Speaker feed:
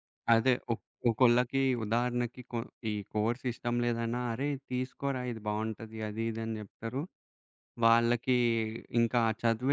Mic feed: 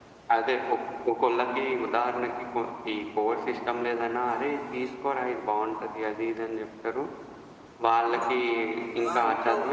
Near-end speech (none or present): present